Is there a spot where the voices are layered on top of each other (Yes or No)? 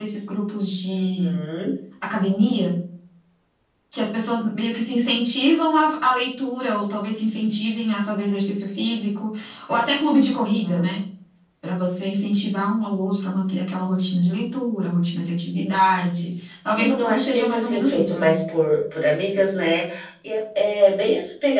Yes